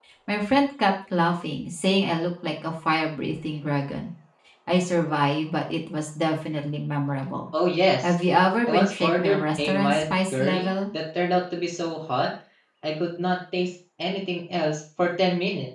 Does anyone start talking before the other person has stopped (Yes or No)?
Yes